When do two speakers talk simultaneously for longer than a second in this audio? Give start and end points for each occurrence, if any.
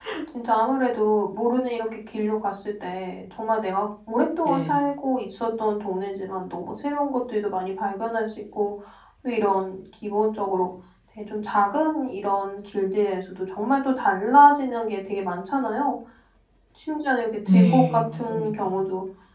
17.5-18.7

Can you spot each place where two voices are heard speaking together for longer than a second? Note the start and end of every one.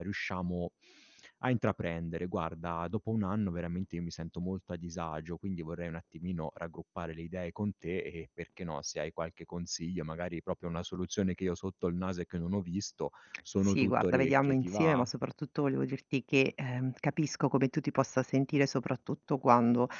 13.6-15.1

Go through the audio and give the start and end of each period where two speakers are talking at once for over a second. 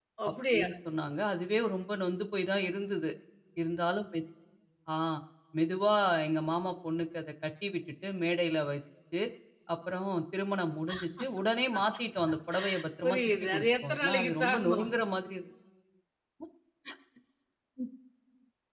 13.0-14.9

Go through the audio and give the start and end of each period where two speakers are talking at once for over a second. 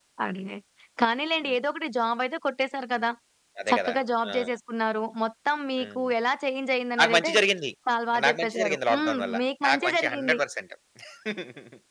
8.2-10.4

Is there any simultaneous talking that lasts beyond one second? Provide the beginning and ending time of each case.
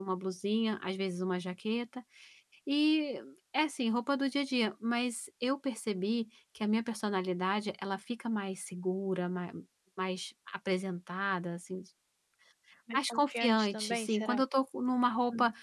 12.9-14.3

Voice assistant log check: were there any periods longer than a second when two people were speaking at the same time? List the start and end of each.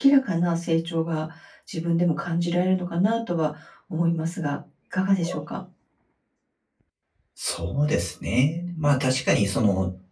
none

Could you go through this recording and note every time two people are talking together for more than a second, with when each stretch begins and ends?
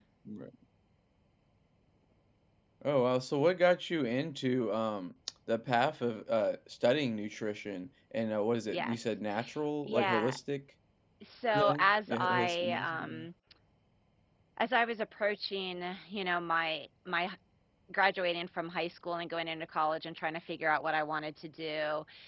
11.5-13.2

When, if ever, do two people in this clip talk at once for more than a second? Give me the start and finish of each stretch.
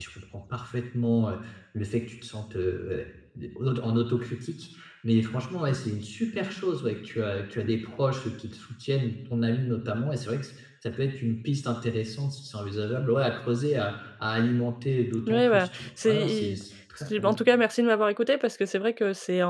15.3-16.6

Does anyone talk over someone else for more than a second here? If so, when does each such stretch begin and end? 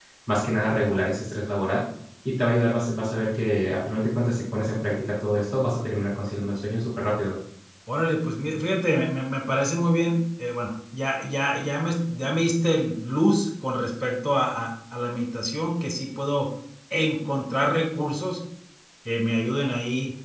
none

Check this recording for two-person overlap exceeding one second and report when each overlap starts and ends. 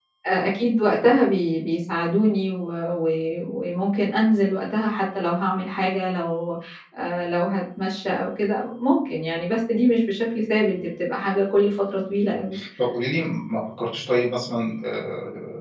none

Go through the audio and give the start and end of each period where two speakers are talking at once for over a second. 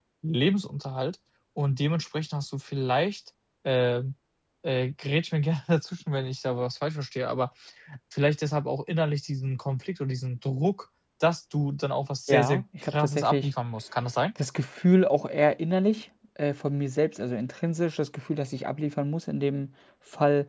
12.3-13.5

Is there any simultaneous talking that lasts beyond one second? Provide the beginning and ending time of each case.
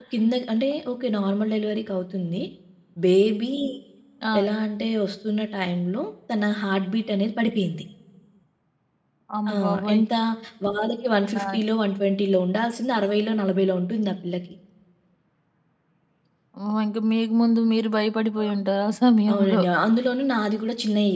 none

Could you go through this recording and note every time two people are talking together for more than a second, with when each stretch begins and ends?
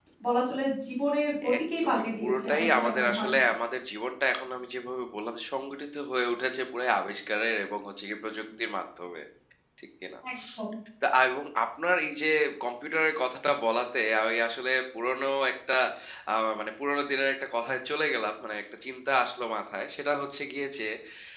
1.6-3.3

